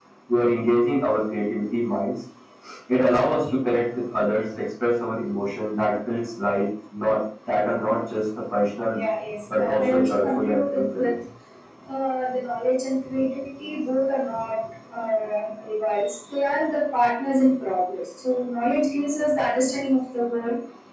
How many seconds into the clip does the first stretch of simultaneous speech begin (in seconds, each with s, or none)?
9.6 s